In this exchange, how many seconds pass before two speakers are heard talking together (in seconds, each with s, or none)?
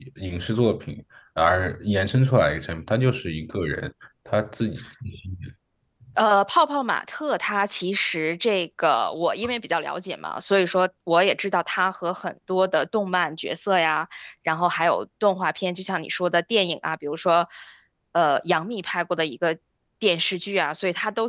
none